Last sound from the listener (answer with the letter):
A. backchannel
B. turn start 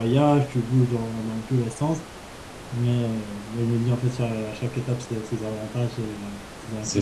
B